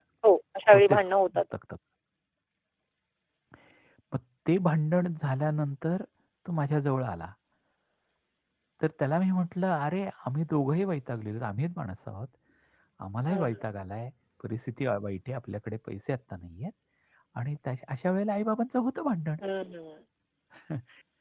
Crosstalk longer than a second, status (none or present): none